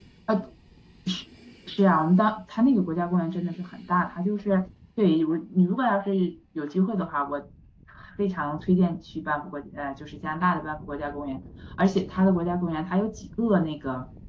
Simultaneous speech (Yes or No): No